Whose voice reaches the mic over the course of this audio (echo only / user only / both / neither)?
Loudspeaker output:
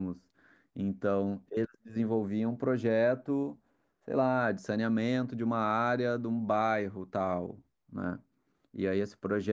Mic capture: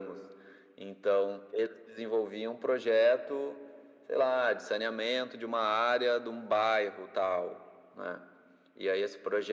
echo only